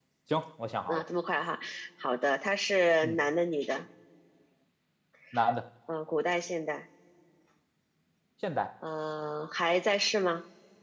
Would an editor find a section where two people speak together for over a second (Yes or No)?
No